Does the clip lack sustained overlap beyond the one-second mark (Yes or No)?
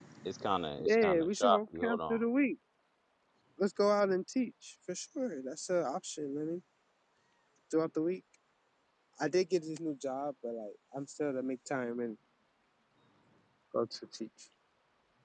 No